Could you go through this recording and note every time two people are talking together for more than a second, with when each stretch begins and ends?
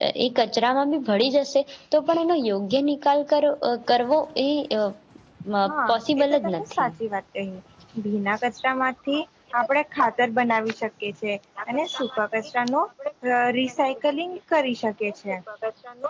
5.6-6.9

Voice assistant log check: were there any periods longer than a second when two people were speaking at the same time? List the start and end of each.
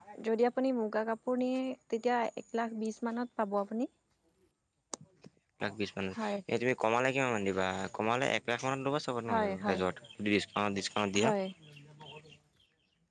none

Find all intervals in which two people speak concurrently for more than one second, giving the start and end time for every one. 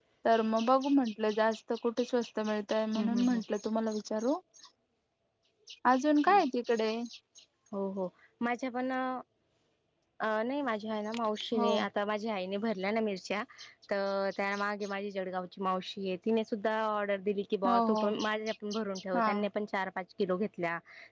none

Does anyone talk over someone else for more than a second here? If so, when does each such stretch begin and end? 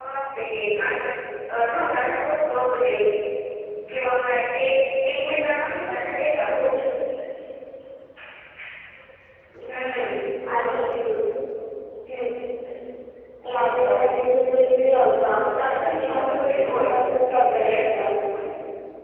15.6-16.8

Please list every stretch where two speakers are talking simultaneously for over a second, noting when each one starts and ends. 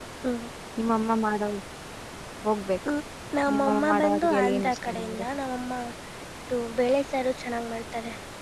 3.5-5.2

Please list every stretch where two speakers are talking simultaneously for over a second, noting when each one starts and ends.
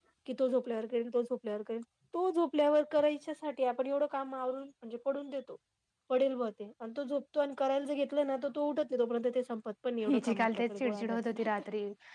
10.1-11.5

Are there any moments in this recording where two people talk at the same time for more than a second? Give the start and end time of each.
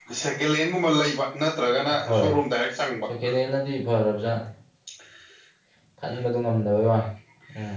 none

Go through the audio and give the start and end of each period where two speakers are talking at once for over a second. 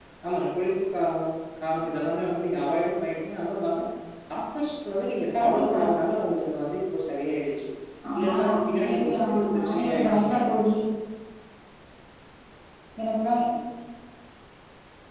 8.3-10.6

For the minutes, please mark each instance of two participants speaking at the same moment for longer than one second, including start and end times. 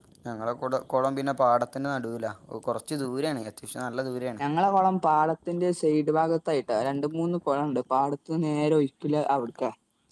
none

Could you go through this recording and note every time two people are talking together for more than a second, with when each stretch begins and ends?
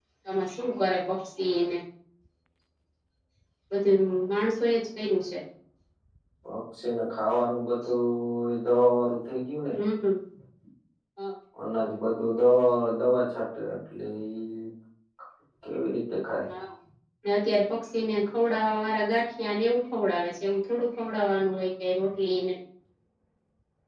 none

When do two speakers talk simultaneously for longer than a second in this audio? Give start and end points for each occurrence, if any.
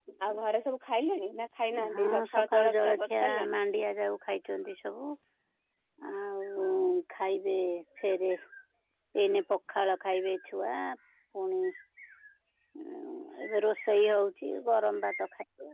2.0-3.6

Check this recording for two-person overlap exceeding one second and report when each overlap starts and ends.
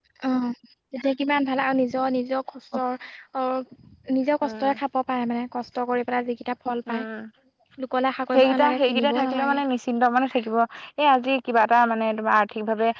8.3-9.6

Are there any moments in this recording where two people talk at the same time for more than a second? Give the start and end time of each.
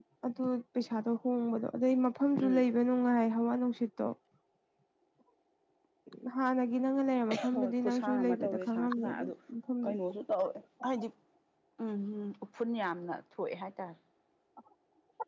7.5-9.3

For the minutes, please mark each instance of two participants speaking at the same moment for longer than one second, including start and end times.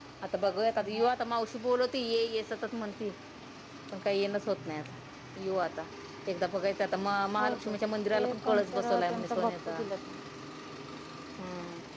8.1-9.8

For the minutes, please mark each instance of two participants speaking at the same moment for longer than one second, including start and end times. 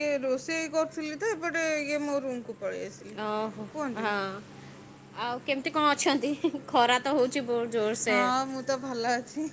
none

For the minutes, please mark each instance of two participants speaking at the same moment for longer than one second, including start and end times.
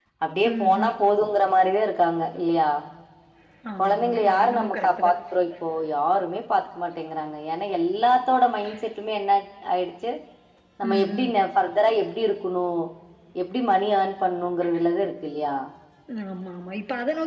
3.8-5.1

